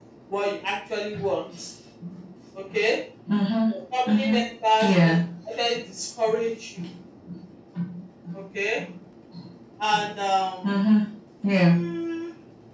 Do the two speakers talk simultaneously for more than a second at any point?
No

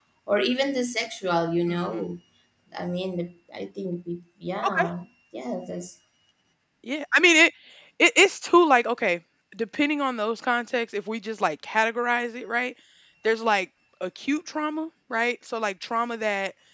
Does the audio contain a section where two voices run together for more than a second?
No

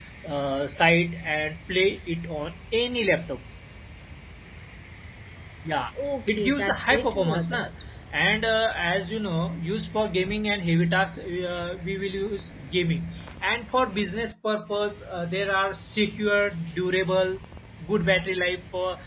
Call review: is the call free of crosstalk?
No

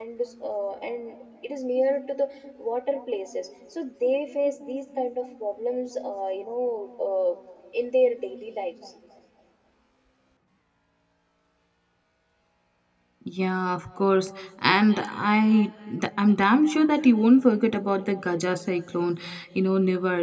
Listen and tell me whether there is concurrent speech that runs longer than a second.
No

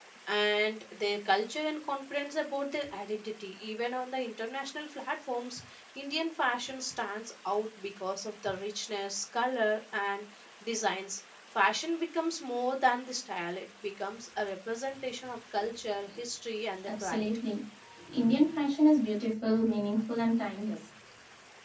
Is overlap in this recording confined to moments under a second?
Yes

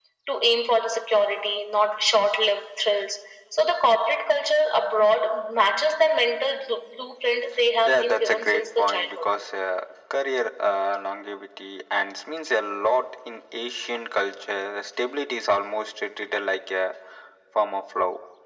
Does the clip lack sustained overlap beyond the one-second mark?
No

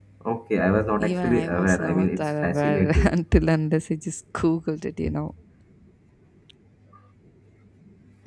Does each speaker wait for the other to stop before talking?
No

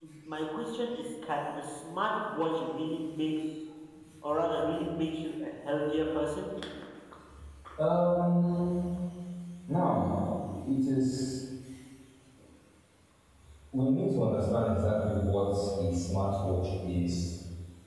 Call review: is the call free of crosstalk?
Yes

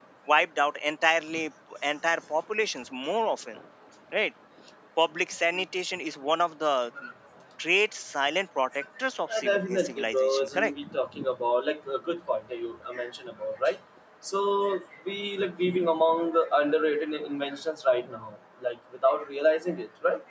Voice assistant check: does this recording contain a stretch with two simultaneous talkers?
Yes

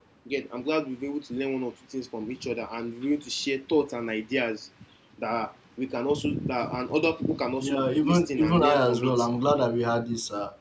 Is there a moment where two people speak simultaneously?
Yes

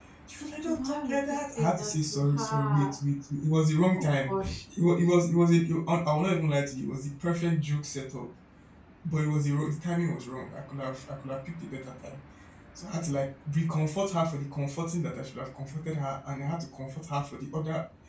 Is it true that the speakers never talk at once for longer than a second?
No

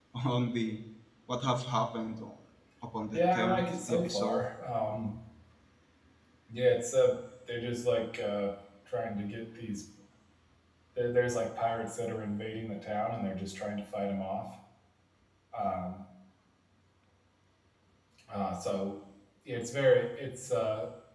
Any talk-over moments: Yes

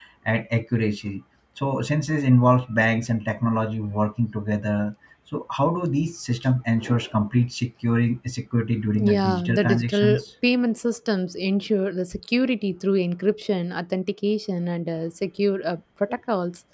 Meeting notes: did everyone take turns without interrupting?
No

